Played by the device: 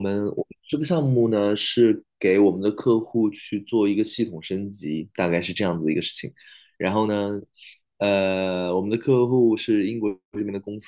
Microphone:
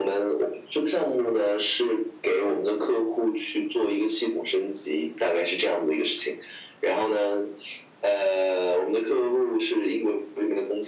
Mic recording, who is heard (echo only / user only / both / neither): echo only